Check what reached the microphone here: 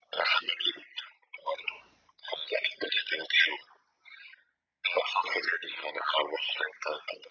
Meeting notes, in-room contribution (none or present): none